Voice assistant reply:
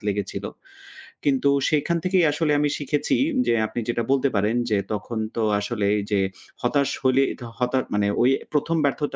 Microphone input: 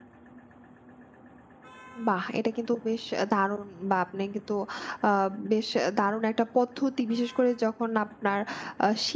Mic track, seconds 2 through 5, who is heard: user only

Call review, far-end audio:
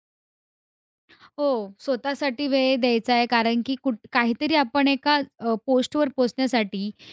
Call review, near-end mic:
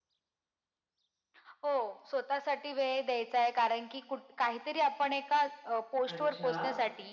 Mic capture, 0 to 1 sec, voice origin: neither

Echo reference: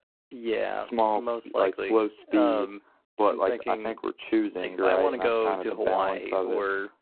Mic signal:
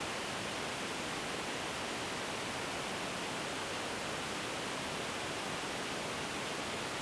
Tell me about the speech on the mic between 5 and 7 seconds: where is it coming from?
neither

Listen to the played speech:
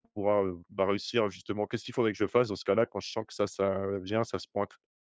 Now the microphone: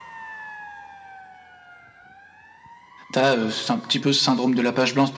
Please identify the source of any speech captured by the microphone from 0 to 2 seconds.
neither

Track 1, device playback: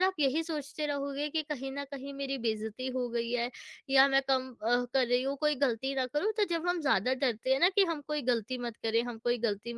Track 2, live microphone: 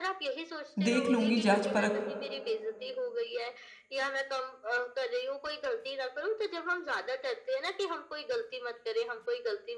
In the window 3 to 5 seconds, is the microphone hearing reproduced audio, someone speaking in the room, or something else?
echo only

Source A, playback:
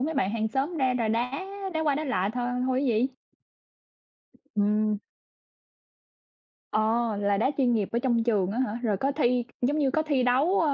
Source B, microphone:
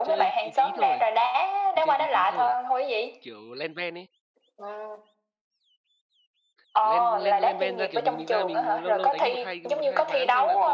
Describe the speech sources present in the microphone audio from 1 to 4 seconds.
both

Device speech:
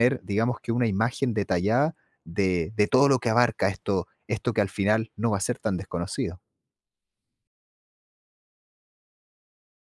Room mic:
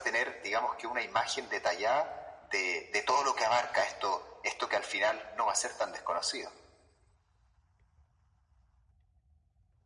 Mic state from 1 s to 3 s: echo only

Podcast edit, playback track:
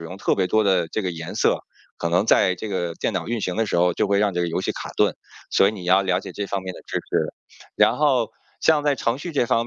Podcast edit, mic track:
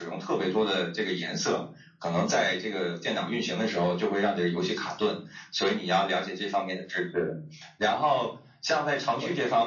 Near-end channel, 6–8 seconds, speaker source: echo only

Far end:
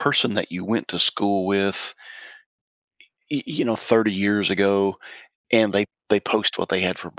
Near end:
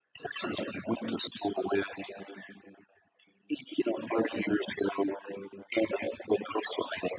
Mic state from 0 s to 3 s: echo only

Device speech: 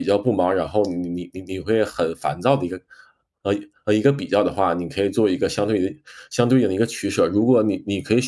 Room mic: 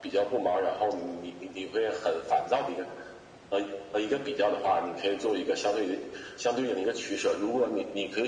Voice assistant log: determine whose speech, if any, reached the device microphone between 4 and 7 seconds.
echo only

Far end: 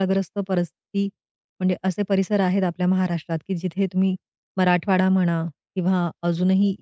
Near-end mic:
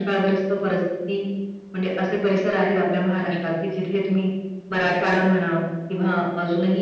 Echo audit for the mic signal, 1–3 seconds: echo only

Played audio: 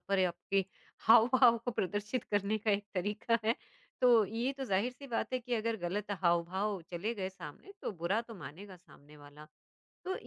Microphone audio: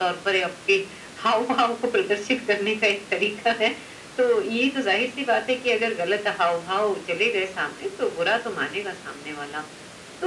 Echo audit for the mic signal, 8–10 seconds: echo only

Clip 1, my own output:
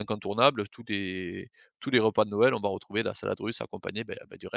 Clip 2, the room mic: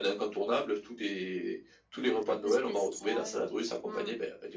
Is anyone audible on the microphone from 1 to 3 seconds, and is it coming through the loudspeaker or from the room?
both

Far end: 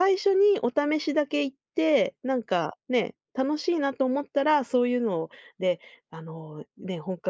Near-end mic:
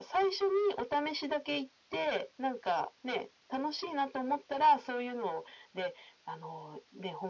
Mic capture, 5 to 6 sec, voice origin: echo only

